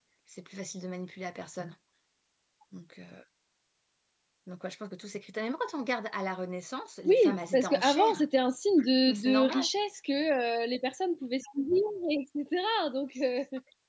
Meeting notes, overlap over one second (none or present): present